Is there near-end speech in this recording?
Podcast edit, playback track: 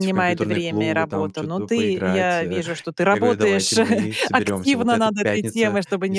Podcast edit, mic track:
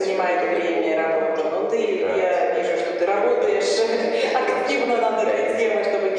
No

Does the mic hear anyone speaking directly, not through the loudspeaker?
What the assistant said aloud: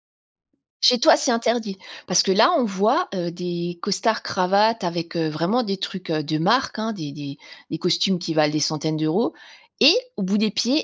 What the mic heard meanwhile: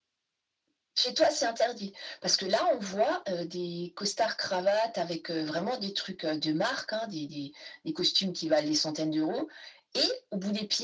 No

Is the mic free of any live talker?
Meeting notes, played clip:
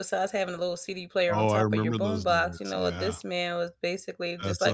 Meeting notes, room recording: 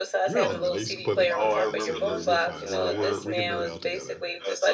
No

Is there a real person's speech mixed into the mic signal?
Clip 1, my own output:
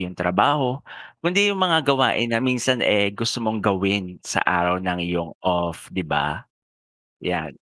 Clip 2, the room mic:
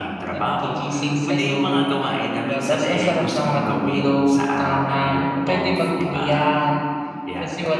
Yes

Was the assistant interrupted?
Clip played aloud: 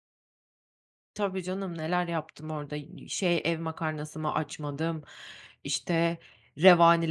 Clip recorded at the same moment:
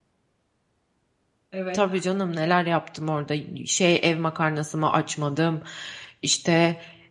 Yes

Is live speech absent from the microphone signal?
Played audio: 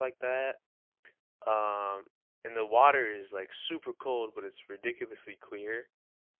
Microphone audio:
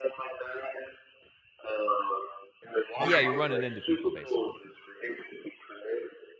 No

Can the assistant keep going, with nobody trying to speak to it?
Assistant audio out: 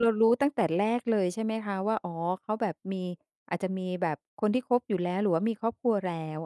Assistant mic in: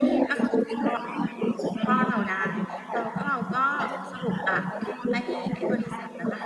No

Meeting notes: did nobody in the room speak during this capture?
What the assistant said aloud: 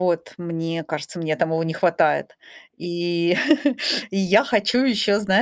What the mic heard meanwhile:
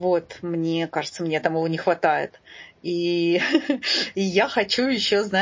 Yes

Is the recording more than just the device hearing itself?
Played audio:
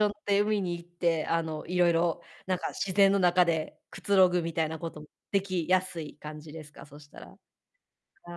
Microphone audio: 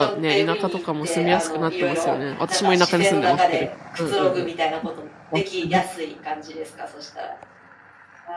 Yes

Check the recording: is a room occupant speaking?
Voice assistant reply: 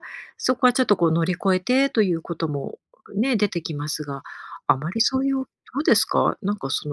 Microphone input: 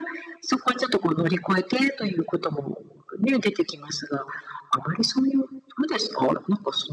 No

